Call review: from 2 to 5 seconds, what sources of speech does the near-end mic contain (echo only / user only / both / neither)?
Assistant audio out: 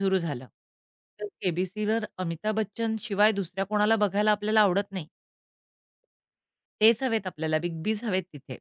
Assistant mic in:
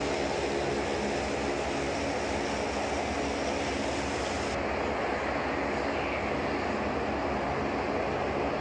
neither